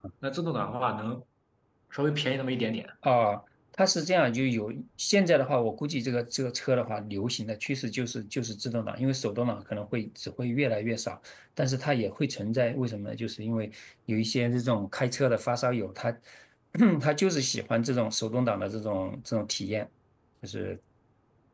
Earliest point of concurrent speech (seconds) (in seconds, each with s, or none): none